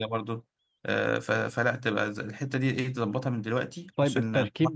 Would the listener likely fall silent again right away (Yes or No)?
No